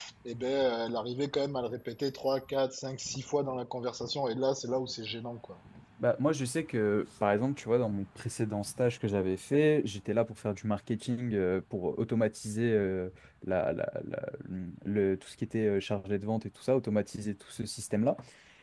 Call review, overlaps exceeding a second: none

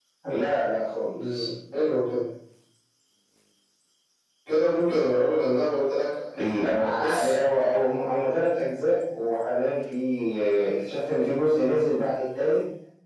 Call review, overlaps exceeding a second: none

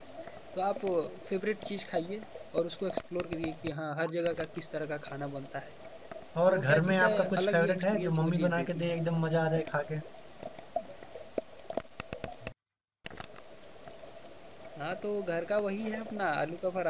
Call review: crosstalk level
present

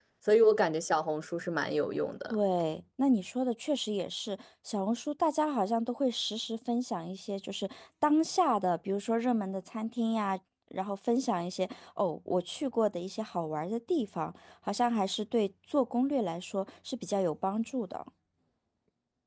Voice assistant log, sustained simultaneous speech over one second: none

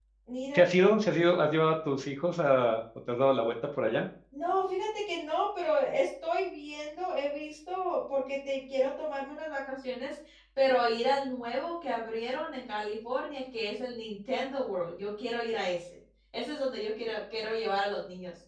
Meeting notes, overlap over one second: none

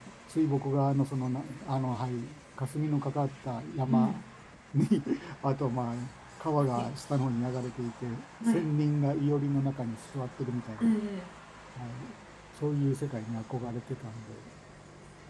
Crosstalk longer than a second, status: none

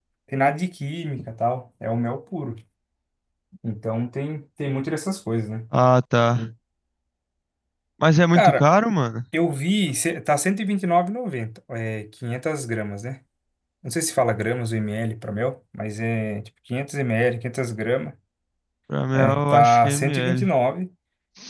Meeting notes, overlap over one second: present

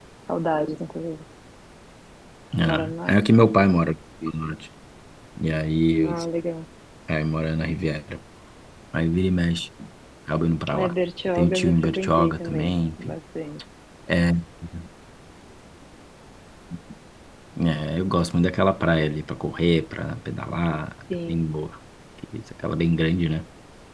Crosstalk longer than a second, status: present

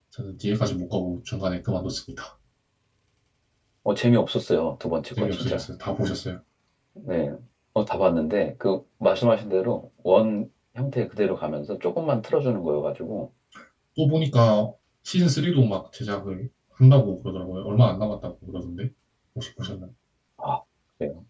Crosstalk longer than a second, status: none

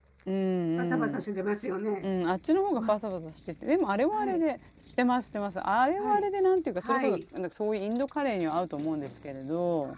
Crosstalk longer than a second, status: none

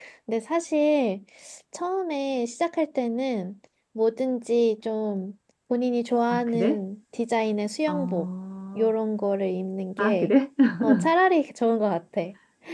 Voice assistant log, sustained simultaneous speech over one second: none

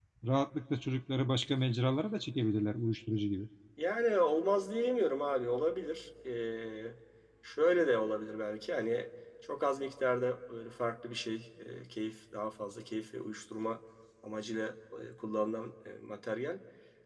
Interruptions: none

